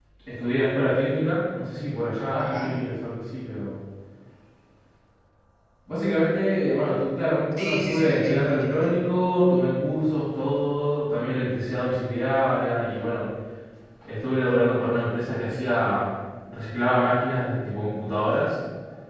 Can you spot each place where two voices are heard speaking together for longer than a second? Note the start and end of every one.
7.6-8.9

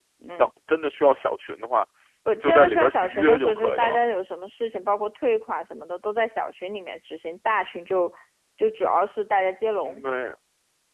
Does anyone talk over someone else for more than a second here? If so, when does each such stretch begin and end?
2.4-4.0

